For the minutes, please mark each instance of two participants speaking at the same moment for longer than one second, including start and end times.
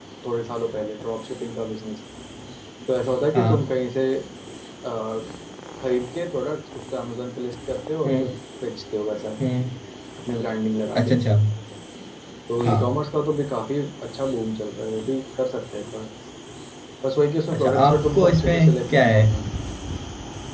17.5-19.2

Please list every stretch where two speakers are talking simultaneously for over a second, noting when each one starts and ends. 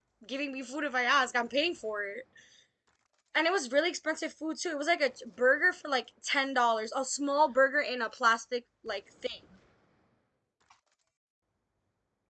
none

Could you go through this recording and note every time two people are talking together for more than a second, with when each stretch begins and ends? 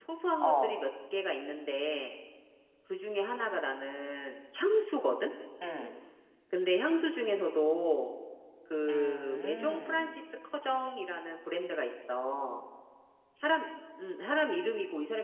8.9-10.2

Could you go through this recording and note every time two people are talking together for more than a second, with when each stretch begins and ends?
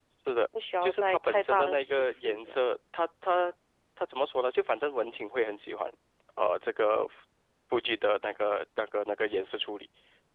0.8-2.6

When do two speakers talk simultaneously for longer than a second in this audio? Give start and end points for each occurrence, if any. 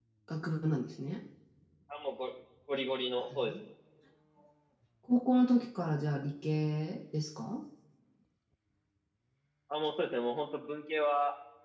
none

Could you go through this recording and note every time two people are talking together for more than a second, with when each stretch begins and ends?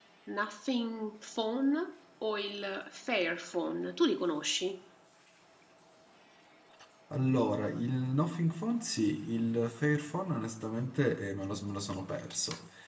none

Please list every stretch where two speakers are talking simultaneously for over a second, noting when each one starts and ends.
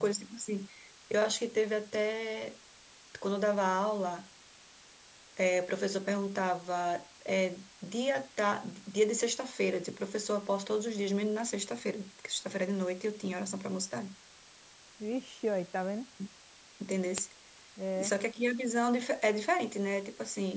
none

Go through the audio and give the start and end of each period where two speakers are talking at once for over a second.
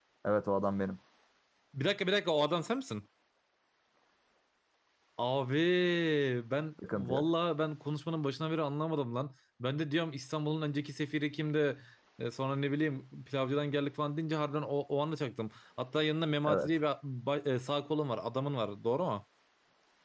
none

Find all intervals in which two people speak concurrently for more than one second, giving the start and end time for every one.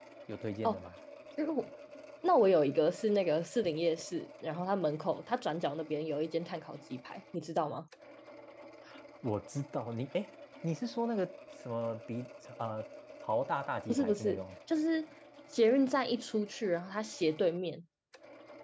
none

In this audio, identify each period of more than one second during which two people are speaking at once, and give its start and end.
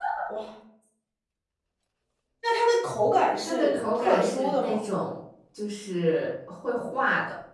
3.4-4.8

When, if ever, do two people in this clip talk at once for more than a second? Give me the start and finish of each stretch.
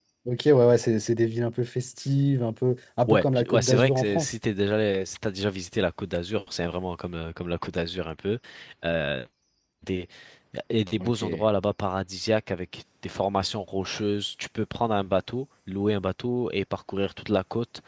3.1-4.3

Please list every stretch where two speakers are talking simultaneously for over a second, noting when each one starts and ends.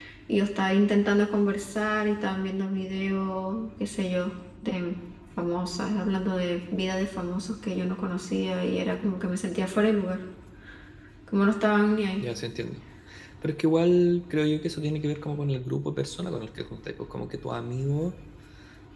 none

